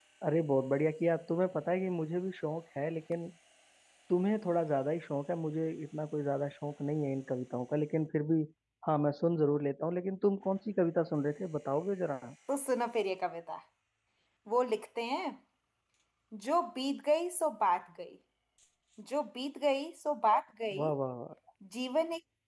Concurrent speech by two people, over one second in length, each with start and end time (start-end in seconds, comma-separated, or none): none